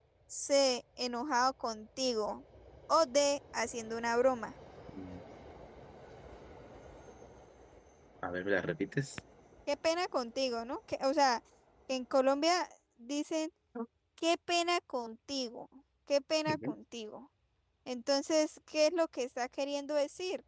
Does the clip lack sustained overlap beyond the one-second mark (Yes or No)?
Yes